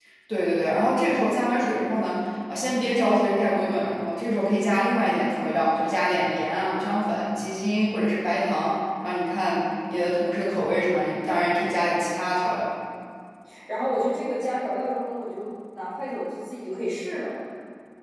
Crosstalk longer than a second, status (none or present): none